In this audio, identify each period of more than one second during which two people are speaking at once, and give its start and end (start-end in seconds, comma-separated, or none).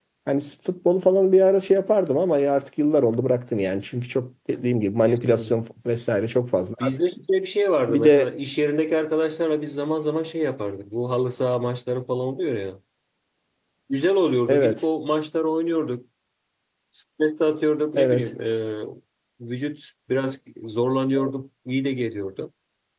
none